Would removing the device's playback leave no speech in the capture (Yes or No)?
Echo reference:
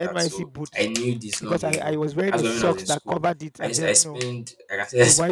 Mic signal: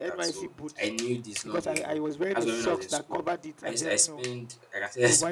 Yes